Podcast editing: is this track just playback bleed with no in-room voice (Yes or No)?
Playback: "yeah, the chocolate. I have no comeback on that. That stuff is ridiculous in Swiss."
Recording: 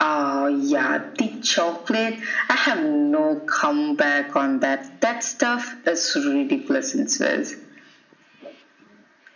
Yes